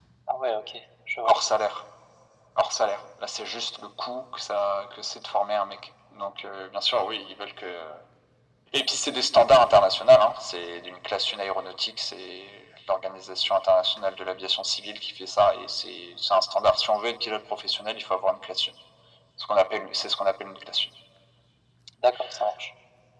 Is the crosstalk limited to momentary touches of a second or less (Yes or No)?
Yes